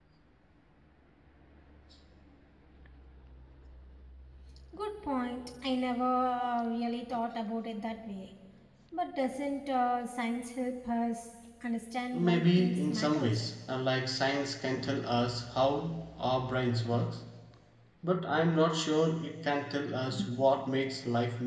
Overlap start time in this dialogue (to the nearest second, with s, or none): 12 s